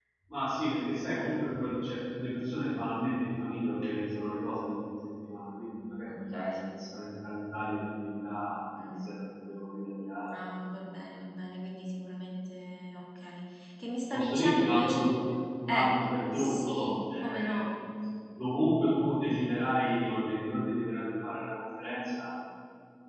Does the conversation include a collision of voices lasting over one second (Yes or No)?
Yes